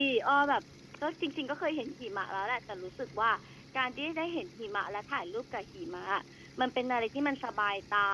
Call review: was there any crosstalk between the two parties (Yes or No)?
No